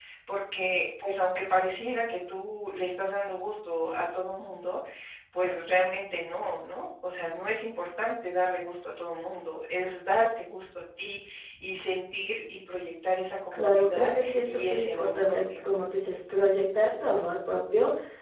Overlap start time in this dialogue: 14 s

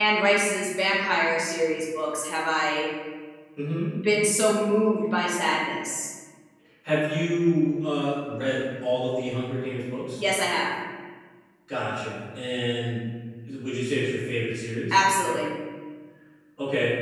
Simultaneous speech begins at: none

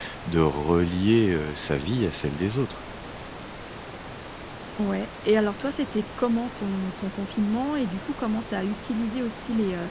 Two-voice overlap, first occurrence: none

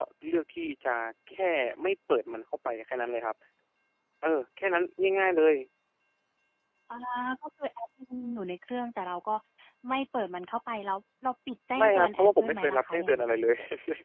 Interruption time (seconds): 12 s

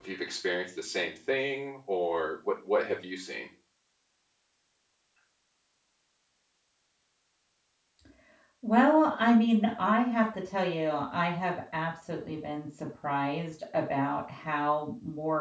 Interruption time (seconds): none

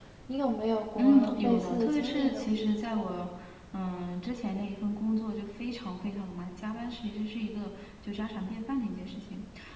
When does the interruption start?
1 s

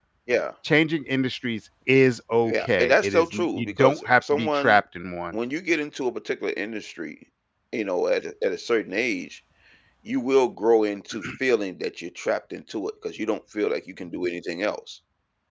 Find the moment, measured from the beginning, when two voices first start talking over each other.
2 s

